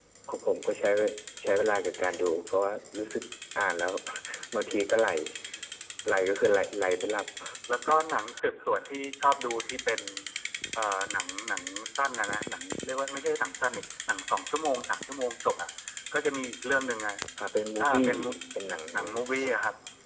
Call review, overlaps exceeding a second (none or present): none